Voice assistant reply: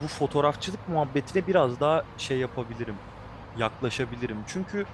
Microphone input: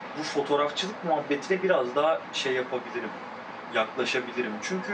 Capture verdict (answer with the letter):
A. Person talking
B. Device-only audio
B